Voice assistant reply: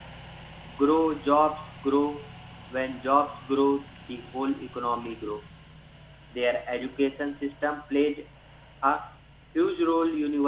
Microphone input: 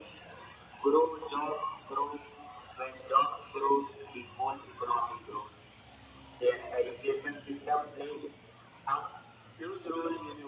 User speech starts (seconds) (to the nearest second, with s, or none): none